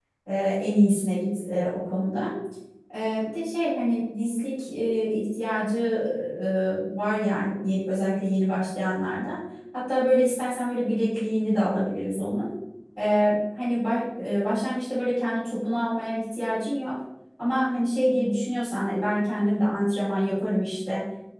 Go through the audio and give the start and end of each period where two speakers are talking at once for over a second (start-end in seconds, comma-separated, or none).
none